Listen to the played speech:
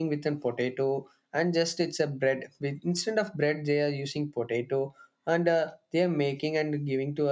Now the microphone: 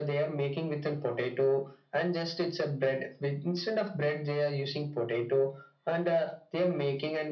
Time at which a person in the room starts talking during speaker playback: none

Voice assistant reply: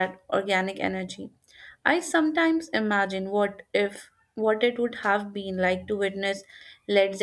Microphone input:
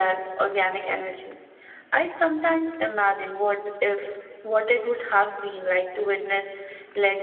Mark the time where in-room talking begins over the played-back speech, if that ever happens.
none

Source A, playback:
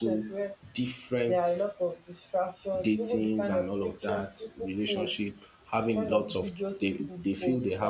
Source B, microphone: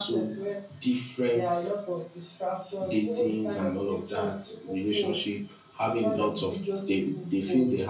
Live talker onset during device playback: none

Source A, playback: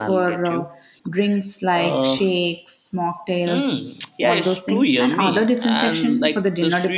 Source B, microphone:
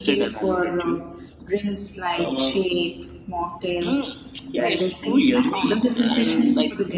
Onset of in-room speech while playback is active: none

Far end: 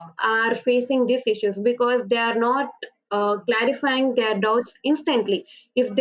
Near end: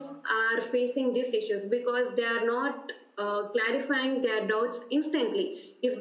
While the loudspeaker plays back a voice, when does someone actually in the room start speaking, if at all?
none

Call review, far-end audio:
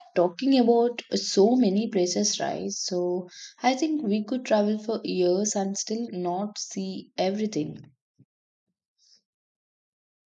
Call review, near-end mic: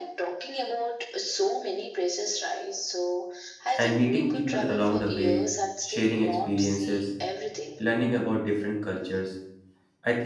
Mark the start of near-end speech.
3.8 s

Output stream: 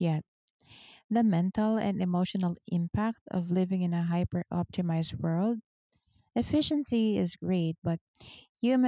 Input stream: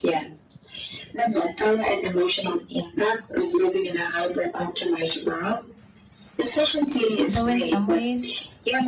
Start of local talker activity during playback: 7.3 s

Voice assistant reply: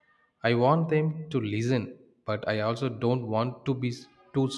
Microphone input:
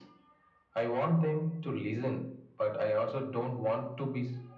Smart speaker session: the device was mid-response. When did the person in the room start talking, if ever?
none

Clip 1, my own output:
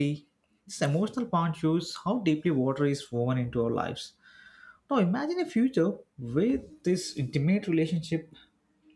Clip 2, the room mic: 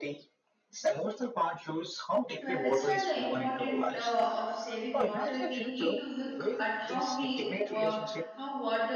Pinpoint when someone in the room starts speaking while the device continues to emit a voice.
2.4 s

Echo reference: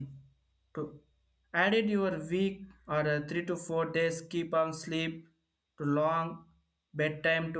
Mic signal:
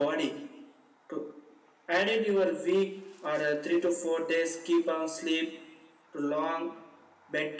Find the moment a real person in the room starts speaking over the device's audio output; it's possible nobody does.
none

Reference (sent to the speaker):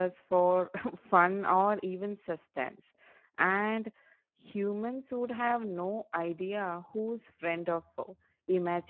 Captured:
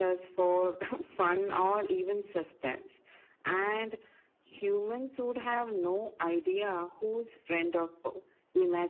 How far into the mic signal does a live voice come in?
none

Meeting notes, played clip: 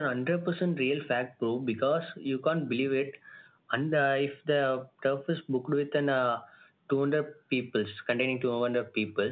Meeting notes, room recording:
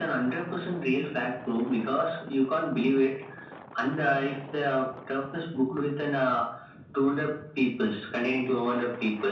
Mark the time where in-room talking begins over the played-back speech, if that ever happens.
none

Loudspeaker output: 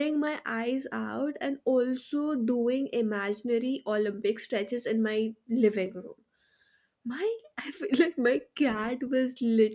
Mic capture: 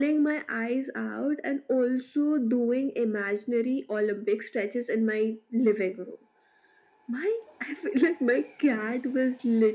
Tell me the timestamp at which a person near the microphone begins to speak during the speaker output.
none

